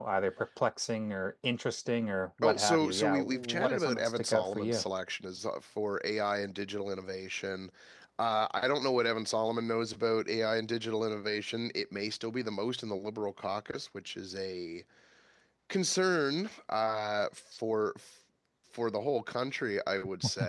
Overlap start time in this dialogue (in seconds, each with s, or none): 2.4 s